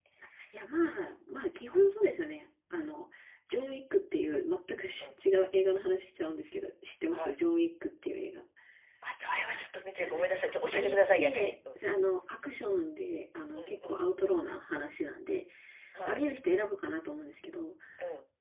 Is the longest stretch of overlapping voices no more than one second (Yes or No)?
No